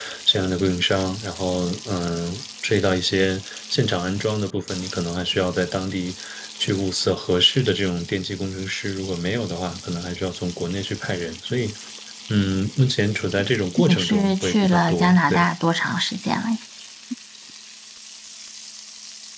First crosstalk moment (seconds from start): 14 s

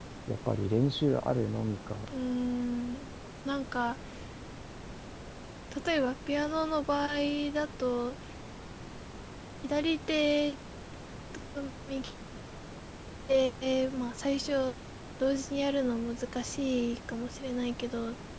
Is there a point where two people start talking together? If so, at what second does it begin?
none

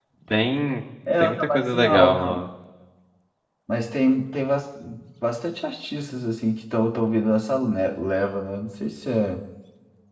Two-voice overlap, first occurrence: 1 s

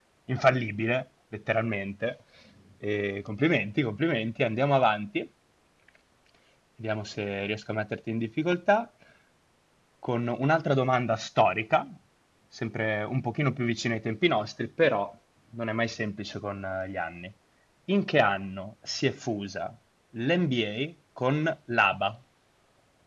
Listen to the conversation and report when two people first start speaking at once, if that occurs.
none

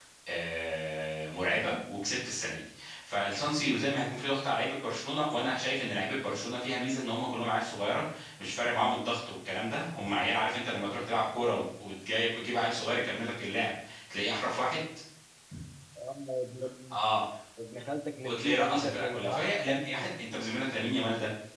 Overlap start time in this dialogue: 18 s

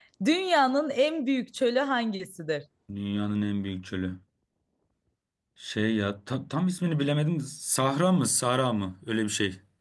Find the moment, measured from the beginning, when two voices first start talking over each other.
none

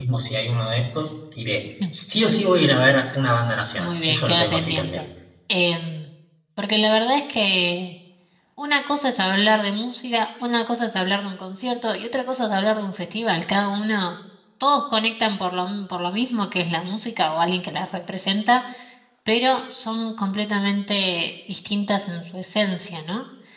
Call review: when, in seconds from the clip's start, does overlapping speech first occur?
4 s

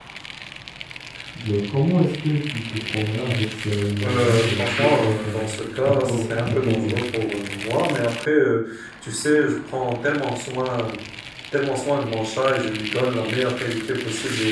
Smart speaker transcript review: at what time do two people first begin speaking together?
4 s

